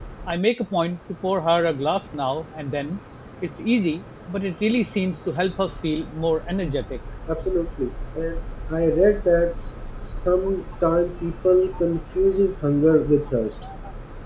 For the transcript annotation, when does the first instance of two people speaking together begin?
none

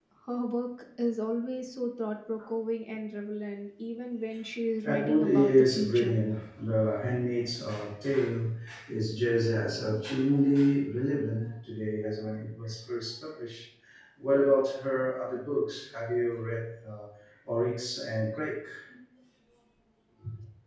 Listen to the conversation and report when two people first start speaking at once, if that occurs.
5 s

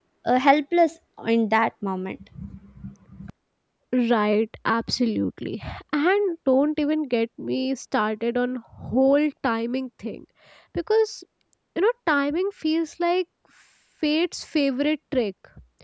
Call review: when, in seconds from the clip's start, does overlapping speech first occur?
none

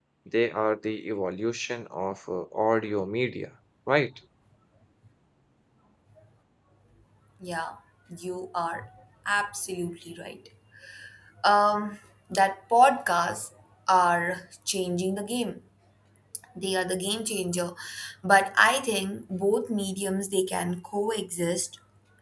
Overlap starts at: none

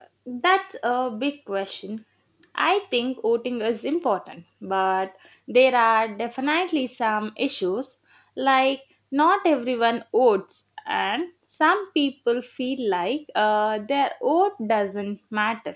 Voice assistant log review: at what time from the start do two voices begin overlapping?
none

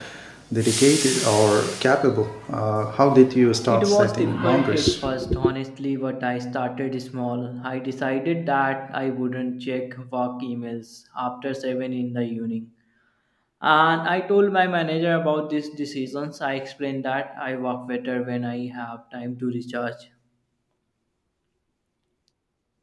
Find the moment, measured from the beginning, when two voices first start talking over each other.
4 s

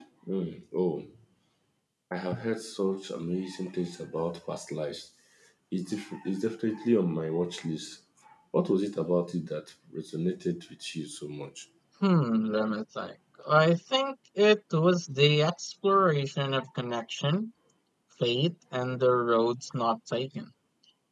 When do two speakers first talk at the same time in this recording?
none

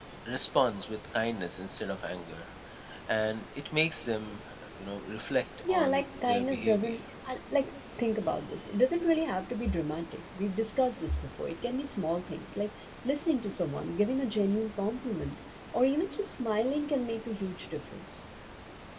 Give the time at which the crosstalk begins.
6 s

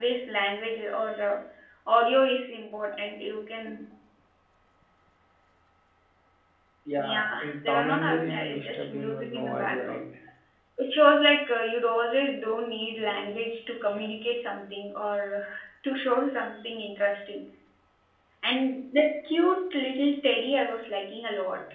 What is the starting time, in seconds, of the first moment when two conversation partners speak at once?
7 s

